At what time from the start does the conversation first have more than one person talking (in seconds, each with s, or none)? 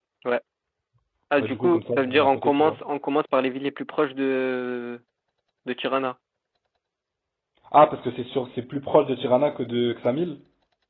1.4 s